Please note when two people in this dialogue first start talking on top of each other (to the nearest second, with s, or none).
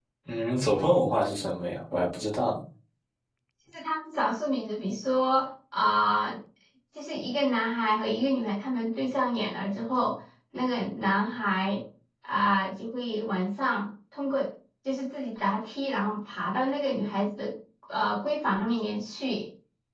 none